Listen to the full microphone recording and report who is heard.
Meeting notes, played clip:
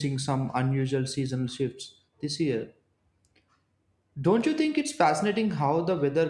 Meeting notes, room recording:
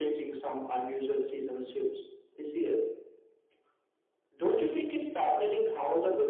echo only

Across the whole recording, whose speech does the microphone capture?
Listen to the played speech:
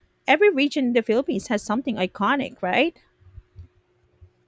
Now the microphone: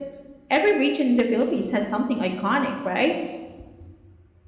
echo only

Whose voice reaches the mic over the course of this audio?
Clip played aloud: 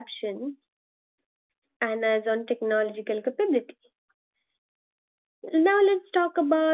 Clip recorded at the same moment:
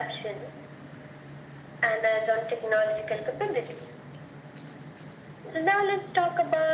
echo only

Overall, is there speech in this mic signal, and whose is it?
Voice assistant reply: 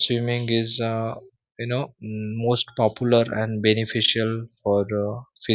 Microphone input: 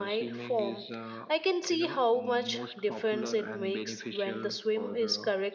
both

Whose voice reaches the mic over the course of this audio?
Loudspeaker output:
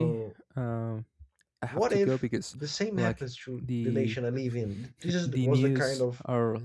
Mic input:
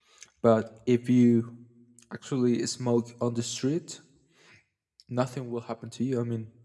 user only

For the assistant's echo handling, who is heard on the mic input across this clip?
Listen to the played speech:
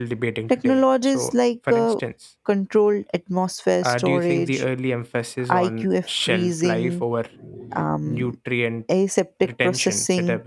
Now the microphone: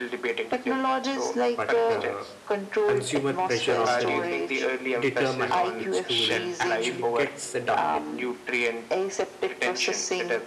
both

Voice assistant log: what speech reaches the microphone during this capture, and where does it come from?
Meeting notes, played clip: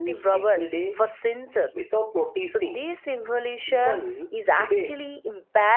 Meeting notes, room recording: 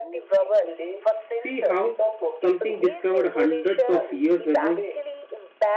both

